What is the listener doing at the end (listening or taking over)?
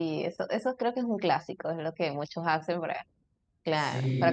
listening